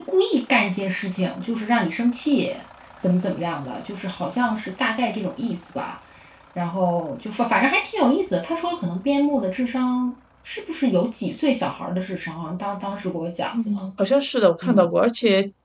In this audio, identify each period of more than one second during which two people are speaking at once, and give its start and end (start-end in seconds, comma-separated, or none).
none